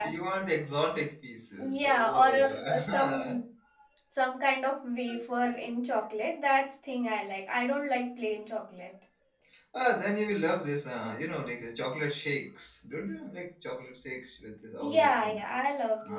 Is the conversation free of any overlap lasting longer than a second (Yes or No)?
No